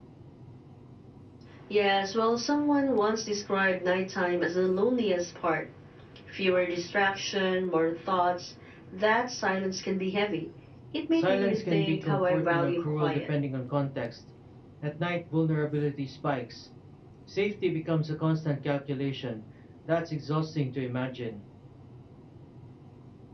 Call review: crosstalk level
present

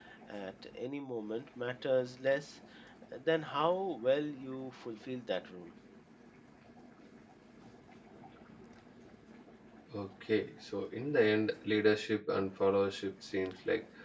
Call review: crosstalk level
none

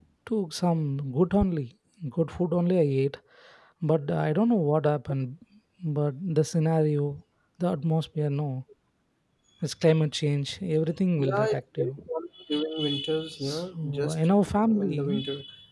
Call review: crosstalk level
present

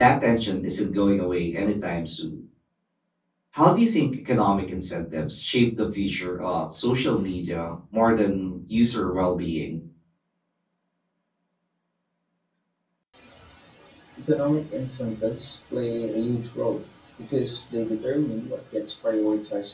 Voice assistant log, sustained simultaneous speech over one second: none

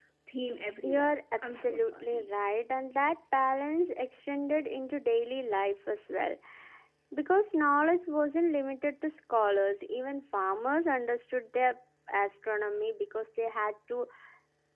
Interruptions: present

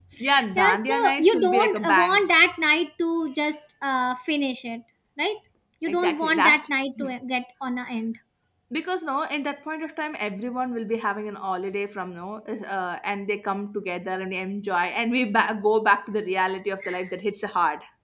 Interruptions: present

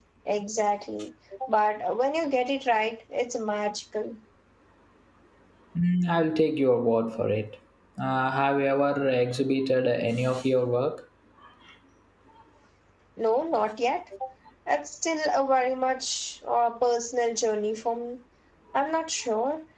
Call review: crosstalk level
none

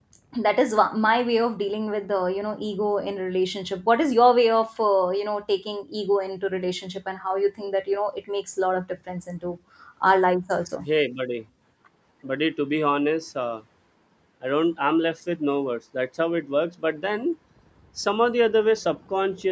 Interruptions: none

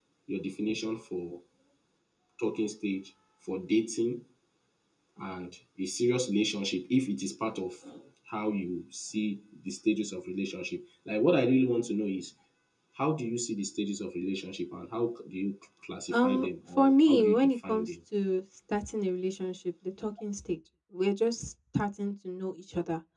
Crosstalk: present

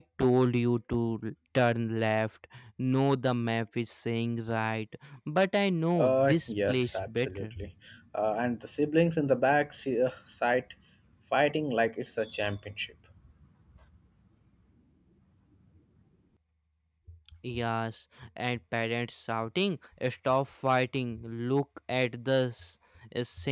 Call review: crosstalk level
present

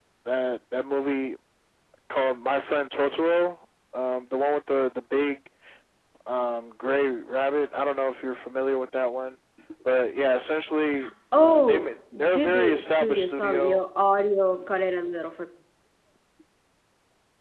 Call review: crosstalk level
present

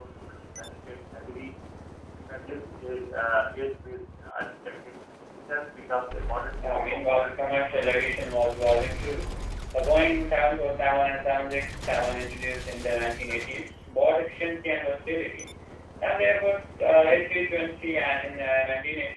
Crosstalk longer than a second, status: present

